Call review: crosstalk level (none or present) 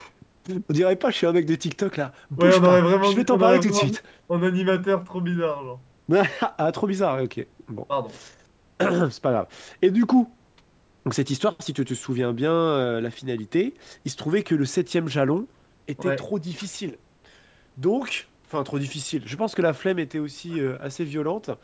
present